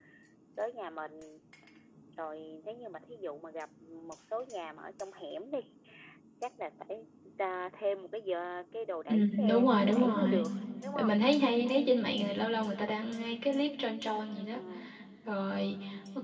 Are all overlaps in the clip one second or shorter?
No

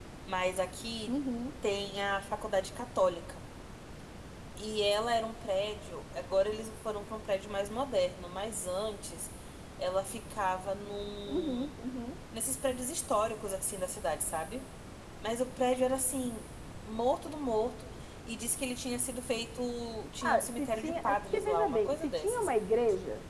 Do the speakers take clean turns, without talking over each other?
No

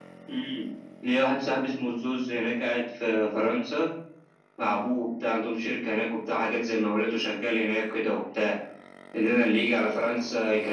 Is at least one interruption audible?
No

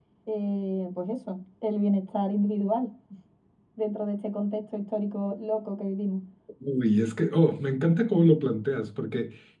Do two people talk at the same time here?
No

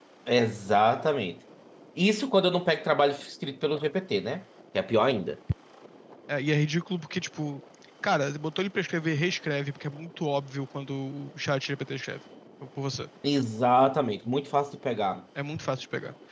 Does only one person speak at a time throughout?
Yes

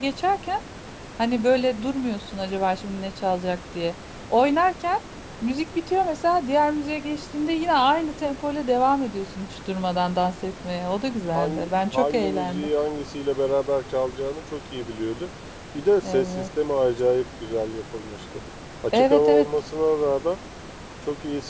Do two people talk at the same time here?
Yes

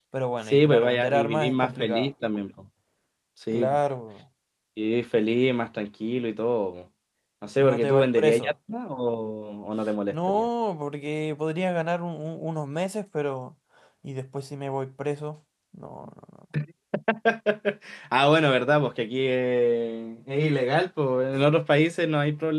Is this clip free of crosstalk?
No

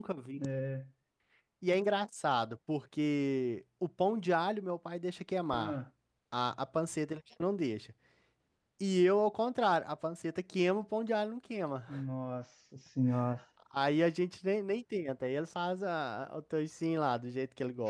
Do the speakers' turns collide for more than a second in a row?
No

